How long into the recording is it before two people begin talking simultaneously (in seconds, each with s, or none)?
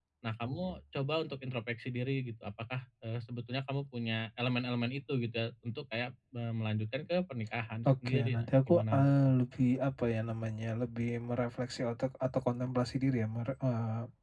7.8 s